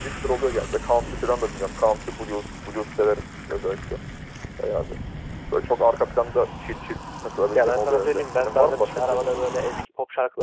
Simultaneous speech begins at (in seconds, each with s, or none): 7.5 s